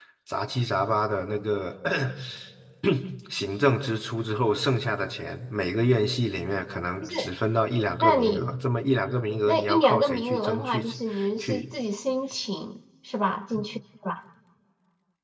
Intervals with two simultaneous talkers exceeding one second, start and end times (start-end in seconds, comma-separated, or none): 9.5-10.8